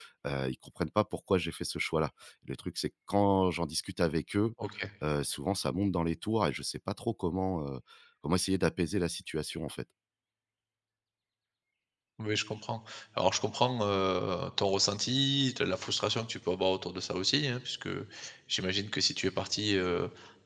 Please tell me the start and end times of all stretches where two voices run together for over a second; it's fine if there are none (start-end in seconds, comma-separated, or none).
none